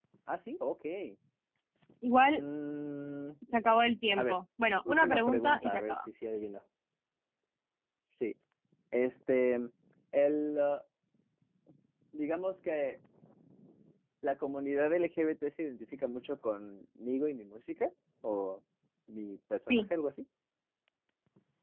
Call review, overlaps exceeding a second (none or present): present